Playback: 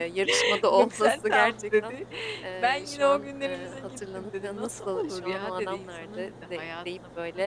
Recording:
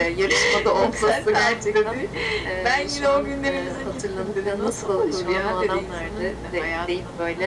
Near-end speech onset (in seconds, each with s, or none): none